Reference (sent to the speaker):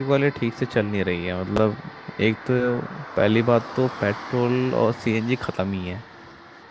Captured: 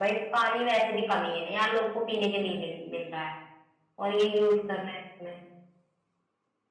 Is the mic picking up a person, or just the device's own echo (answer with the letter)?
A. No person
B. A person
B